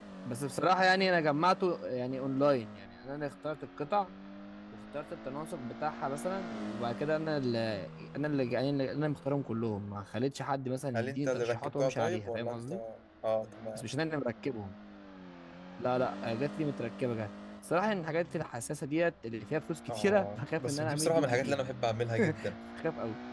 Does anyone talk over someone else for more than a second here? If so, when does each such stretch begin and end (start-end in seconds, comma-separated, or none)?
10.9-12.7, 19.9-21.6